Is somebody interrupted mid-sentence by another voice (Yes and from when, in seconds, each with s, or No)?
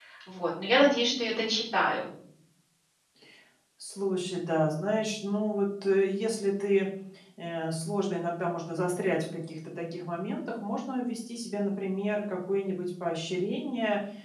No